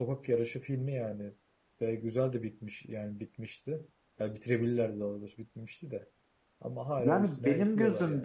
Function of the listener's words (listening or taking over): taking over